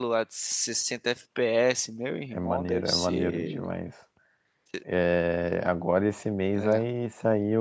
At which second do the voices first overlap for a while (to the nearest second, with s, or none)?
2 s